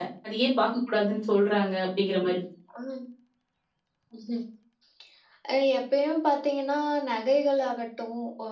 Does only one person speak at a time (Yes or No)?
Yes